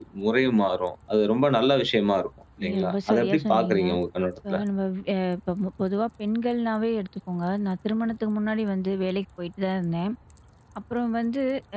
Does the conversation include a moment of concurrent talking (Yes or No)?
Yes